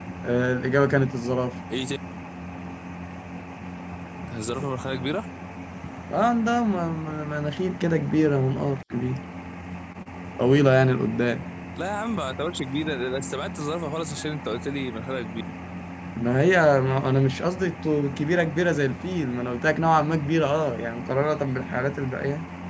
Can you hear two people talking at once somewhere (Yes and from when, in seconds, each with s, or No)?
No